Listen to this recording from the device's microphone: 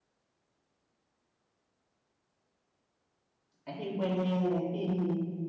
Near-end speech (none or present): present